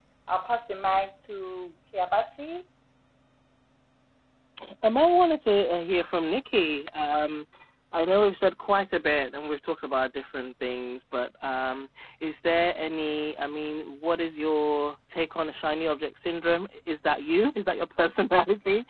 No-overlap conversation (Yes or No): Yes